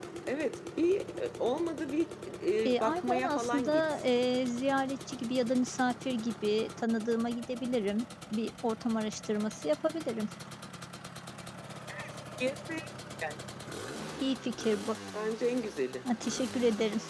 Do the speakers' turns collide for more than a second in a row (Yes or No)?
Yes